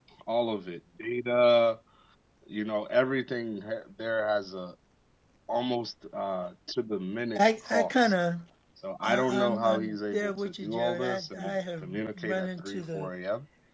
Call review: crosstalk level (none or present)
present